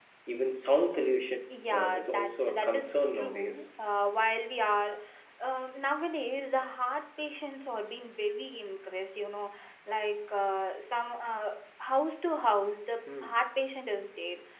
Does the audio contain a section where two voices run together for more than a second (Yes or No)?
Yes